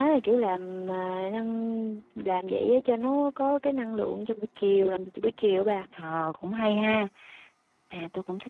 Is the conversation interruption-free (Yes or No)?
Yes